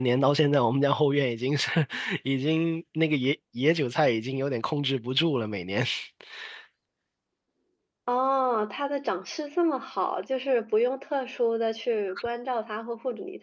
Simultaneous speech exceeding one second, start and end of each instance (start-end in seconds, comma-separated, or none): none